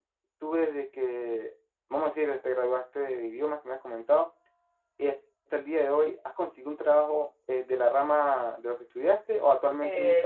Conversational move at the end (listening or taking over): taking over